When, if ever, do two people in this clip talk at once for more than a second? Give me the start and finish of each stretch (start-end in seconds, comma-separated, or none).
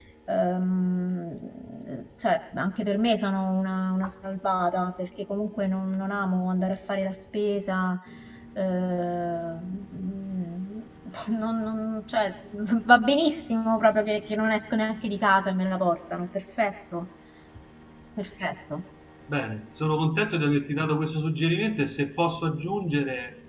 none